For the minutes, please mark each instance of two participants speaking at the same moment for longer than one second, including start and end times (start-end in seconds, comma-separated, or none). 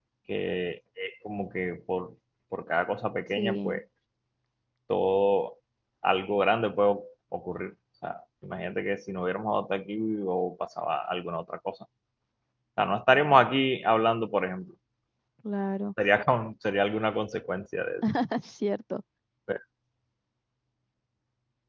none